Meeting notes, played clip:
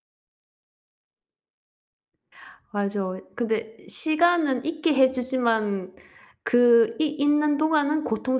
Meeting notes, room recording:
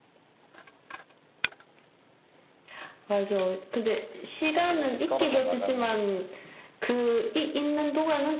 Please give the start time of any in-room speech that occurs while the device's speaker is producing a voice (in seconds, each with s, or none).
4.6 s